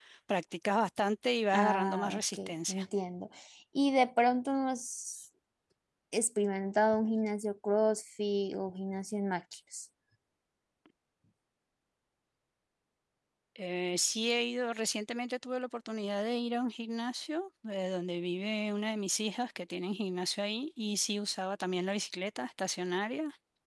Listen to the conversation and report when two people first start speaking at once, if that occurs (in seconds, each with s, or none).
1.5 s